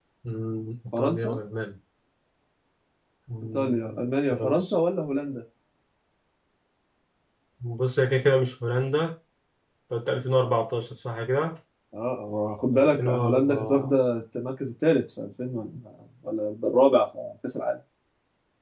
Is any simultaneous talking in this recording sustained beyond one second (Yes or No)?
Yes